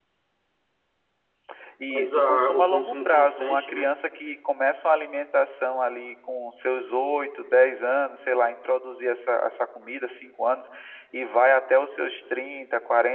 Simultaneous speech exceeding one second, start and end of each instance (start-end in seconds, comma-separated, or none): 1.9-4.0